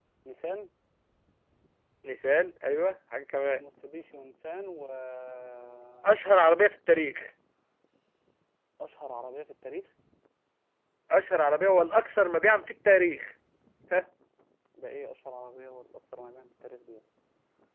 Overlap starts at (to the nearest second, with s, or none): none